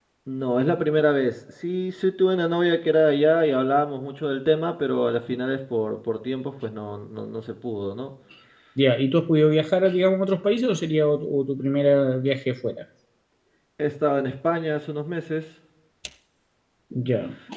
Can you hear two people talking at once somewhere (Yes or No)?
No